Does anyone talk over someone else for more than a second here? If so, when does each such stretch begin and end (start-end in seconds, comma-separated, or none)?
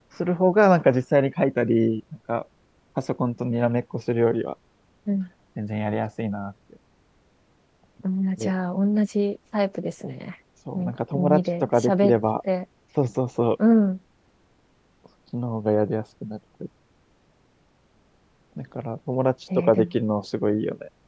10.8-12.2